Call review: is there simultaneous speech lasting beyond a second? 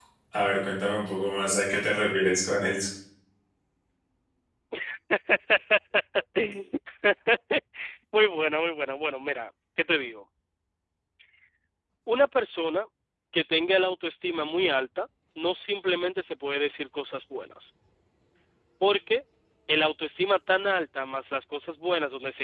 No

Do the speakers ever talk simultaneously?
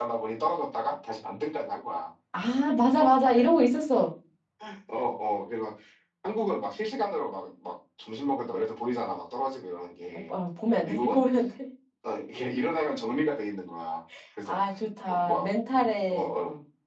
Yes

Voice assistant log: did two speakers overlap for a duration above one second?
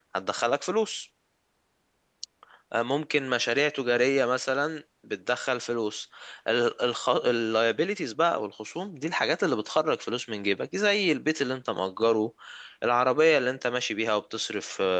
No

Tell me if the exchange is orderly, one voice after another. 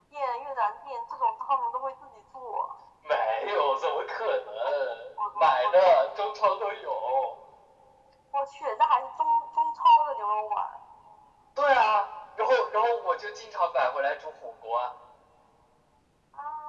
No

